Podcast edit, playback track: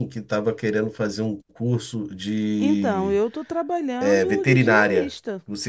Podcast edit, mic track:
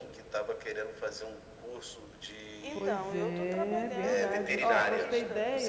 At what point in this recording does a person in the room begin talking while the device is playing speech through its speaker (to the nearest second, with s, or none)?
3 s